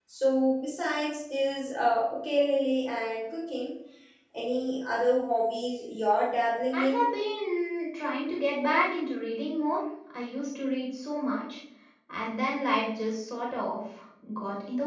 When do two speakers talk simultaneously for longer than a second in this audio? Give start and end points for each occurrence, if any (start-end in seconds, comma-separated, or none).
none